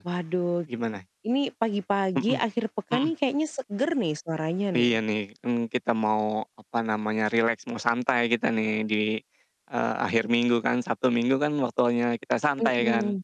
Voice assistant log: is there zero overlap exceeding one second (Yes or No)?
Yes